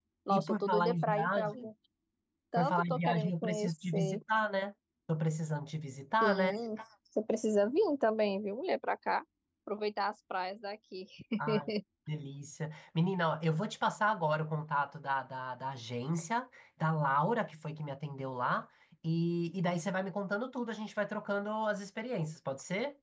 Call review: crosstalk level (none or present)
present